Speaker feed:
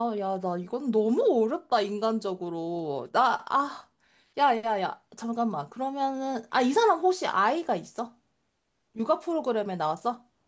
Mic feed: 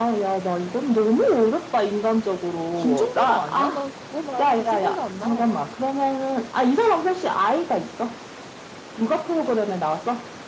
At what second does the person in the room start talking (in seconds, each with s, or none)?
2.7 s